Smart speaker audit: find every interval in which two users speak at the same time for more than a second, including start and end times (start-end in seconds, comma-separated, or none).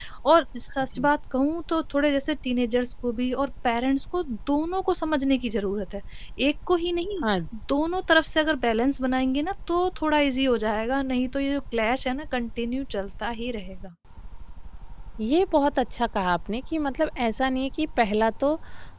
none